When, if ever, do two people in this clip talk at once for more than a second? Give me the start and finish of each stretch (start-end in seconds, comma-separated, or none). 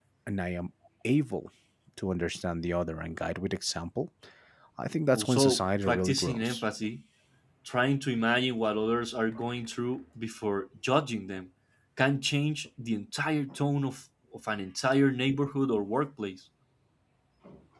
5.1-6.6